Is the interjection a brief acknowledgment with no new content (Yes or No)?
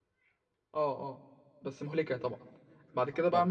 Yes